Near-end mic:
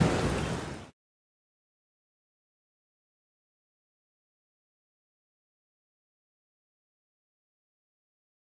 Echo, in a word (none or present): none